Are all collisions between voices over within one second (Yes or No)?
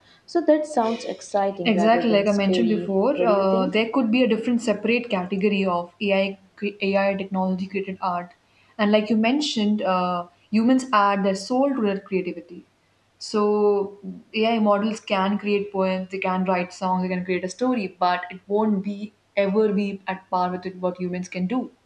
No